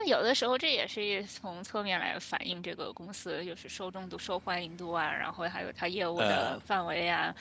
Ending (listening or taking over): listening